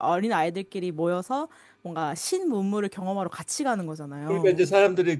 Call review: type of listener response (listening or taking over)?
taking over